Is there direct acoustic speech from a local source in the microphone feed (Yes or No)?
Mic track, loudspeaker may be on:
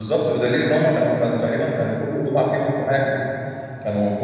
Yes